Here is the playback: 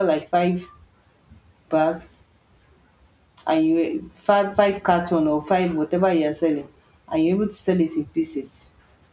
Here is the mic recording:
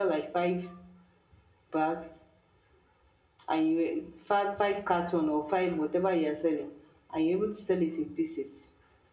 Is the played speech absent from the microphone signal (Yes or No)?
No